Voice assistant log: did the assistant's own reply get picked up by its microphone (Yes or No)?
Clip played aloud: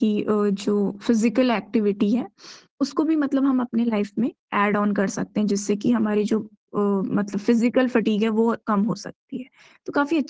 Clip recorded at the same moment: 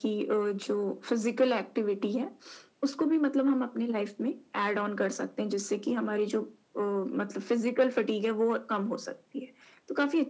Yes